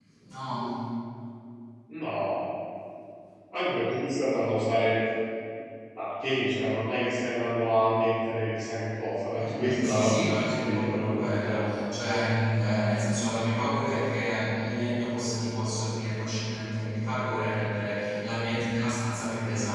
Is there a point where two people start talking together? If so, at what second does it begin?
9.4 s

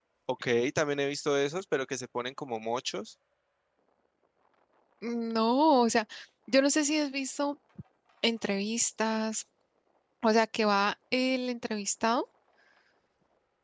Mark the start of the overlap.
none

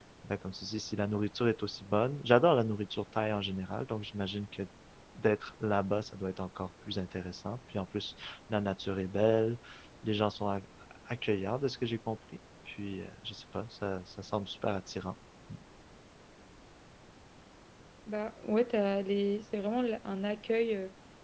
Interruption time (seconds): none

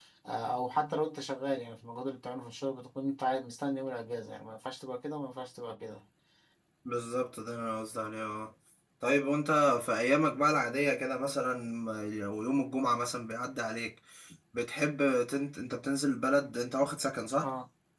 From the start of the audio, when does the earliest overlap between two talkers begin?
none

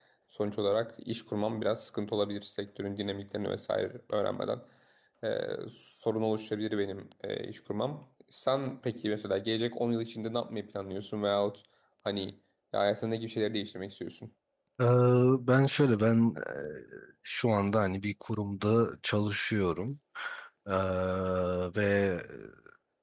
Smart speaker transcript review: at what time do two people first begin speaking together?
none

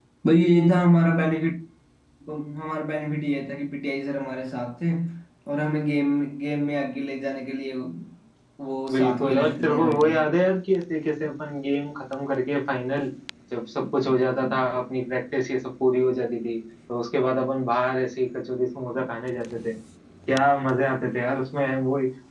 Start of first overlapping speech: 8.9 s

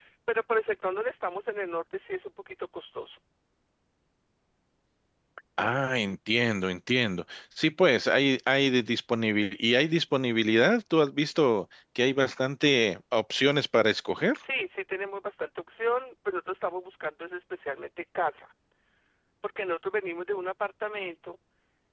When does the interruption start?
none

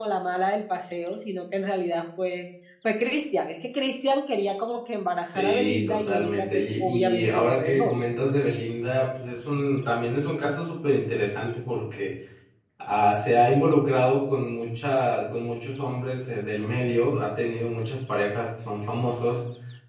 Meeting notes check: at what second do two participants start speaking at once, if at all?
5.3 s

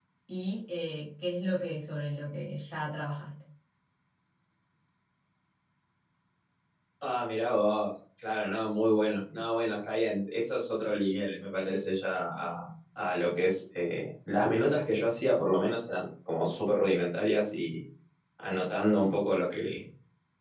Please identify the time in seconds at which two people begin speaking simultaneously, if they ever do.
none

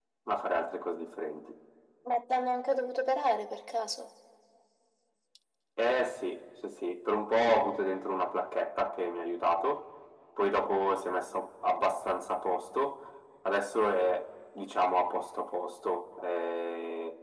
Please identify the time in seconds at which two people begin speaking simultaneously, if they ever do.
none

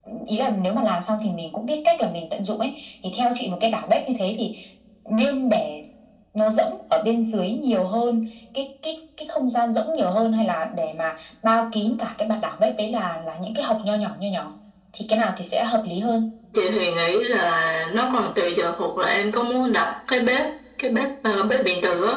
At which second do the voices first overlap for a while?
none

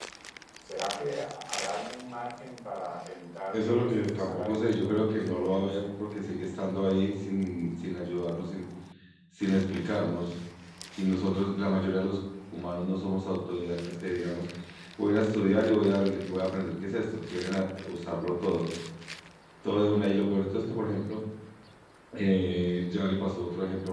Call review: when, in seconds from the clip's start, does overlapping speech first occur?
3.5 s

